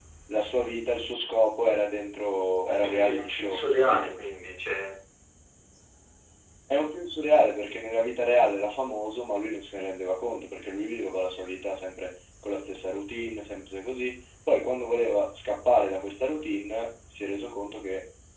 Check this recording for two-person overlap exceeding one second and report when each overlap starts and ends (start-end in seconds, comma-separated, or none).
2.7-4.1